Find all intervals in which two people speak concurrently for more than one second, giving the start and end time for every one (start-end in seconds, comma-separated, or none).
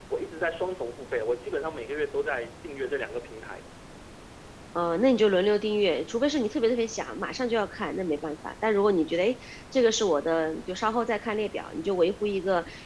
none